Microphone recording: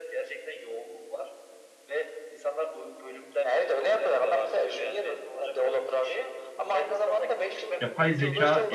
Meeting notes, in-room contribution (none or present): present